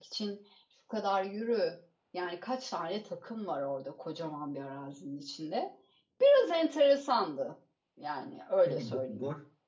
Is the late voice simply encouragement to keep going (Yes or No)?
No